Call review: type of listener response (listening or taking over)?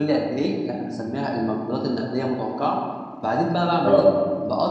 listening